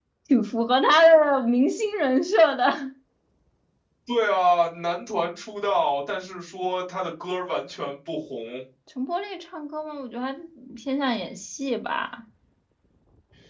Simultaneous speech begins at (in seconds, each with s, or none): none